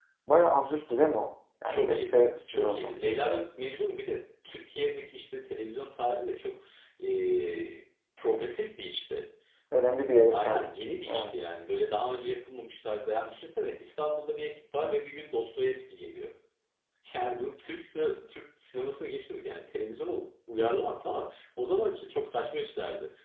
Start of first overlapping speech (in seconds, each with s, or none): 1.6 s